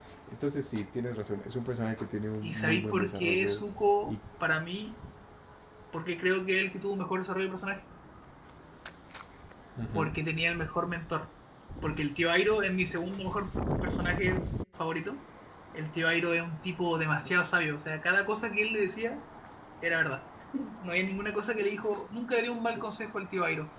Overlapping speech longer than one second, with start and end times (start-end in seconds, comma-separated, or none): 2.4-3.6